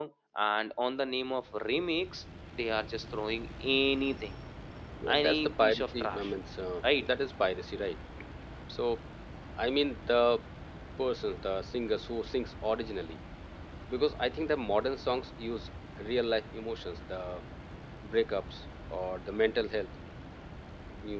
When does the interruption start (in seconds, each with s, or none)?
5.1 s